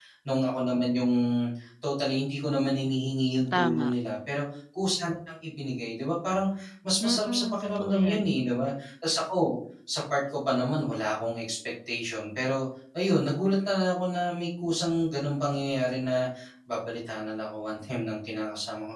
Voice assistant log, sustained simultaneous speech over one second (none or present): present